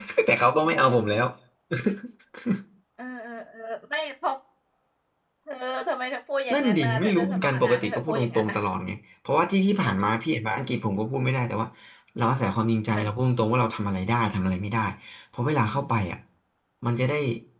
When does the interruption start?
6.5 s

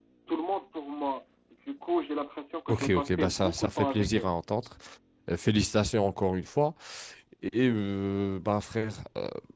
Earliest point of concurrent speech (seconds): 2.7 s

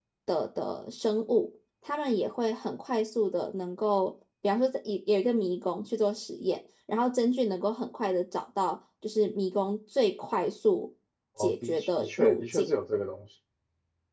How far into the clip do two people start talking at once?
11.4 s

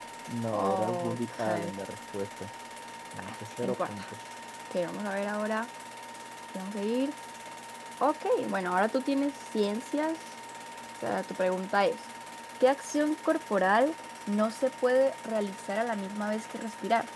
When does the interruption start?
0.5 s

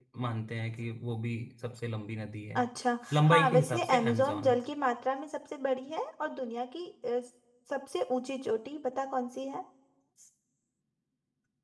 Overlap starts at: 3.1 s

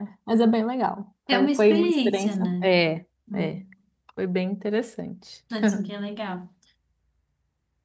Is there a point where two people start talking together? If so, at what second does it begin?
1.3 s

